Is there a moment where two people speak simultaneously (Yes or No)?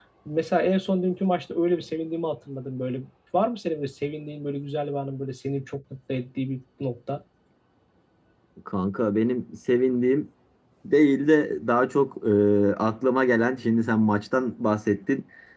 No